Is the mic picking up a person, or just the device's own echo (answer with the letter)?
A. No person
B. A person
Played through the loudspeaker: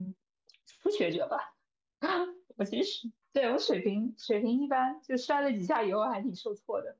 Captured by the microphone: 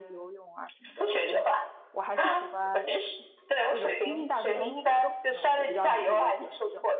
B